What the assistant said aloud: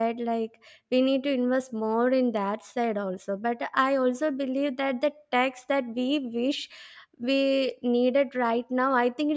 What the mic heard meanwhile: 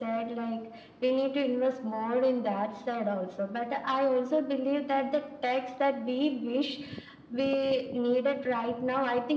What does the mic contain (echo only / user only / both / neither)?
echo only